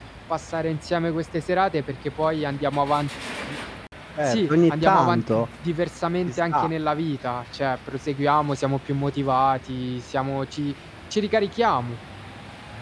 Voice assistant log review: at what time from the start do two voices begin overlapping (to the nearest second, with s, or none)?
4 s